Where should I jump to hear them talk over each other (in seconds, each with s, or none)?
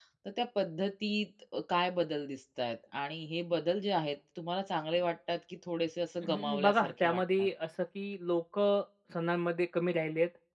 6.2 s